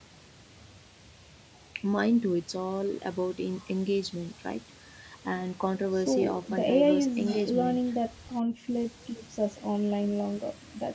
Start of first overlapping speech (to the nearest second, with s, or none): 6 s